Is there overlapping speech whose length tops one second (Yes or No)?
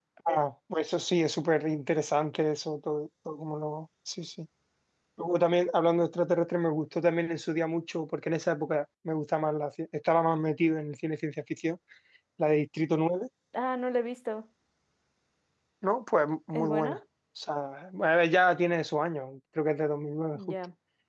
No